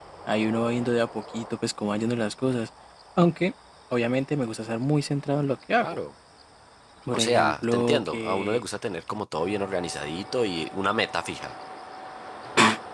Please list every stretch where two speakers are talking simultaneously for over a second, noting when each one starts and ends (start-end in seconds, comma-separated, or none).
7.1-8.6